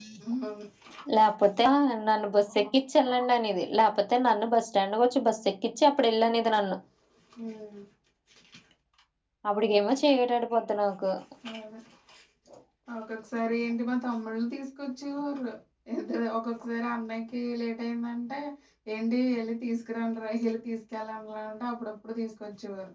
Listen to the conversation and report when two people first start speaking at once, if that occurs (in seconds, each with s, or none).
none